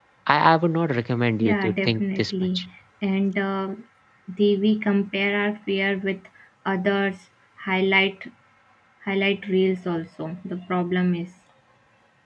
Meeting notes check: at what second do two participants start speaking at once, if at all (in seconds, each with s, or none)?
1.4 s